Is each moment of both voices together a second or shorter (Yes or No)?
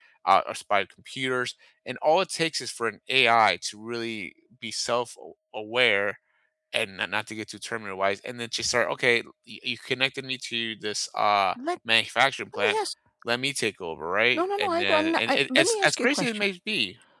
No